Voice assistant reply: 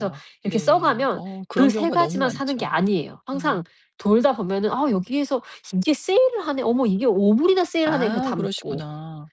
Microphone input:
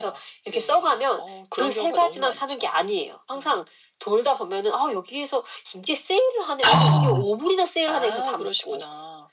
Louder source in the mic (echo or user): user